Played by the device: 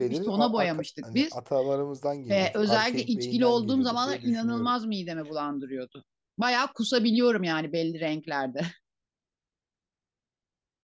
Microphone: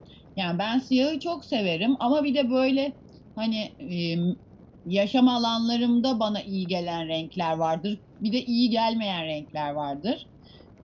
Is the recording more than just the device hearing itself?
Yes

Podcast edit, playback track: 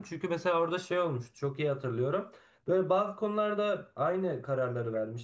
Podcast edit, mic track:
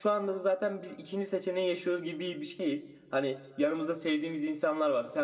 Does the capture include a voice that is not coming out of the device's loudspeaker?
Yes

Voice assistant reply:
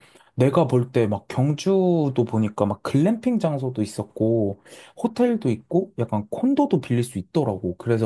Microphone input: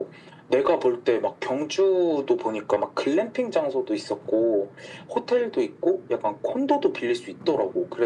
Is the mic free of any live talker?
Yes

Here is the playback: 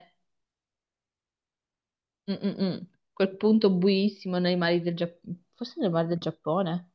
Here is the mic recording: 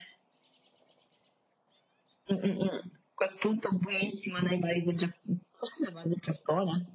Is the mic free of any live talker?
Yes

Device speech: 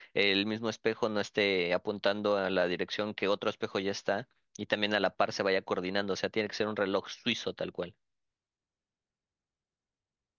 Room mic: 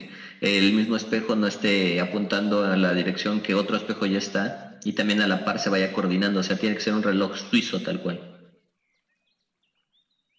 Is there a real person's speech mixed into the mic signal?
No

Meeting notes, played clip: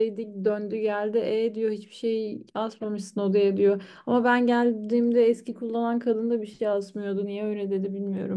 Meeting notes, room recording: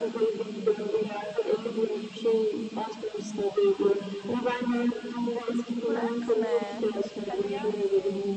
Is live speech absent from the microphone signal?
No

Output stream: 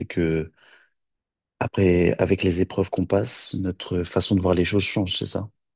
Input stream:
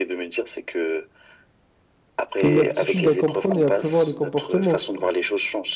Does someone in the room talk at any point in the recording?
Yes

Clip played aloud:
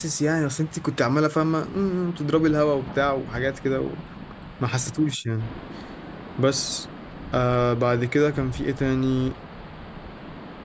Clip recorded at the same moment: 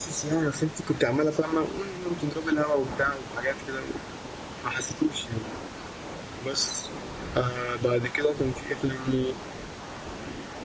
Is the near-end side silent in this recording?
Yes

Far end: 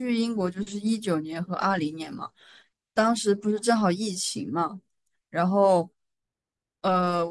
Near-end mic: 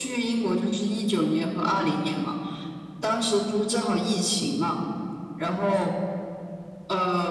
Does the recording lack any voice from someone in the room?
Yes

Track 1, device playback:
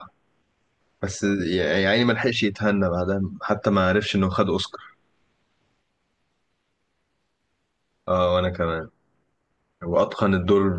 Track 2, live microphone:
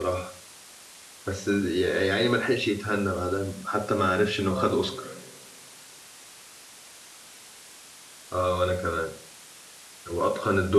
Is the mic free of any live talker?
No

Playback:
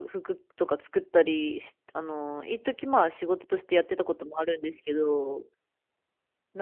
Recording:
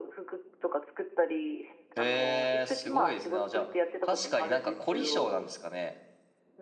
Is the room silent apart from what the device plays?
No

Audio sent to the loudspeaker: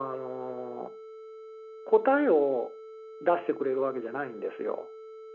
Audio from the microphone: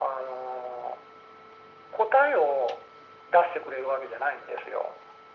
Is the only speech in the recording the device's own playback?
Yes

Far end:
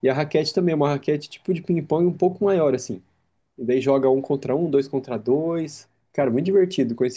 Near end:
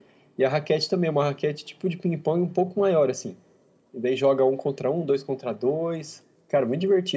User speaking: No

